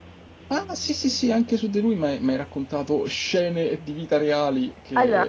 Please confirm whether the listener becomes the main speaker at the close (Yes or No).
Yes